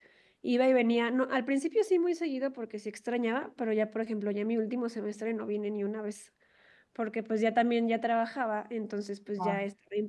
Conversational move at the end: listening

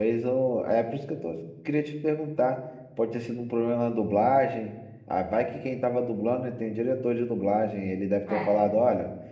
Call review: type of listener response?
listening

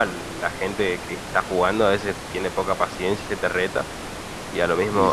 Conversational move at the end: listening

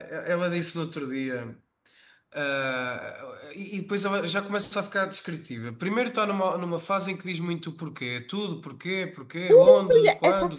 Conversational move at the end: taking over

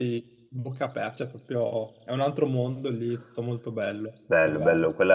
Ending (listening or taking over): taking over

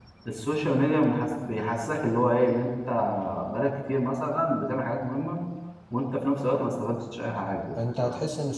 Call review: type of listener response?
taking over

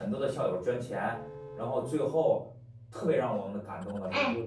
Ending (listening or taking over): taking over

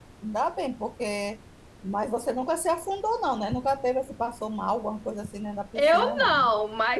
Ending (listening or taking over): taking over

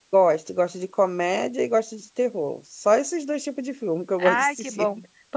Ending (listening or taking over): taking over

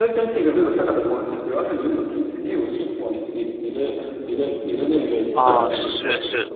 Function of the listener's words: taking over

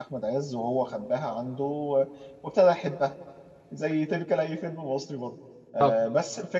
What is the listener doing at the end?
listening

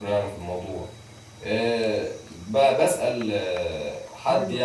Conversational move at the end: listening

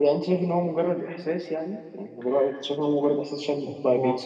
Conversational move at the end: listening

